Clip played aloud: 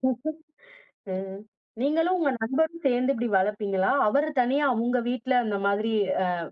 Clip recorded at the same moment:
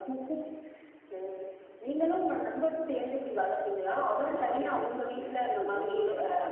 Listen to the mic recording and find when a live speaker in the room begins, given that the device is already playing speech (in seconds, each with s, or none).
4.0 s